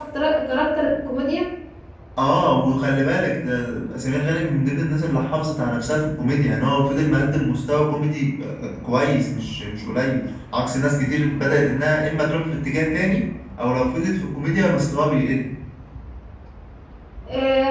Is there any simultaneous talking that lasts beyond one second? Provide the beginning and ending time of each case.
none

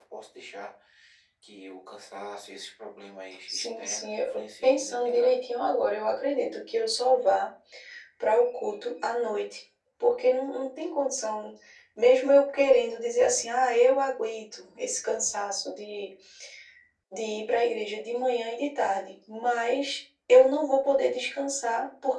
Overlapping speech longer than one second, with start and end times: 3.5-5.4

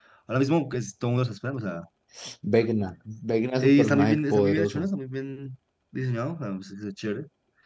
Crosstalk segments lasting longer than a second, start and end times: 3.6-4.9

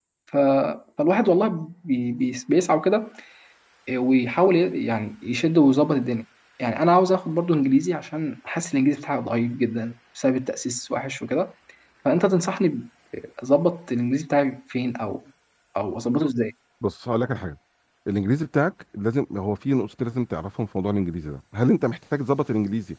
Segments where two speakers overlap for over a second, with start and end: none

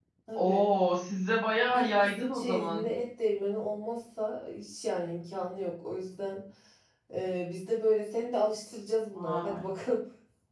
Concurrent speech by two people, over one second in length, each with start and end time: 1.7-2.9

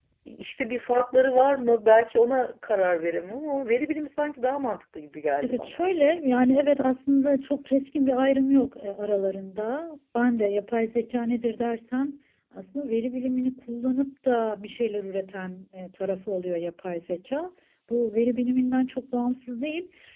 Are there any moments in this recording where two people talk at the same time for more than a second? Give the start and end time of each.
none

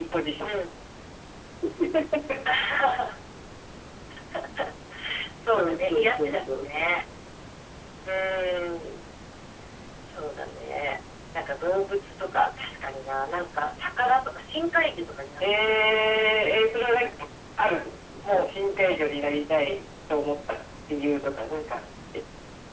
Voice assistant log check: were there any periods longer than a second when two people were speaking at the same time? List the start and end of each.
5.6-6.9

